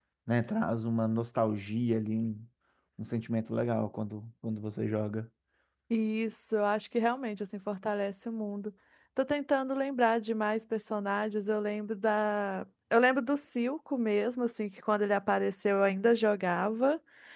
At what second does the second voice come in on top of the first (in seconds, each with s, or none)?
none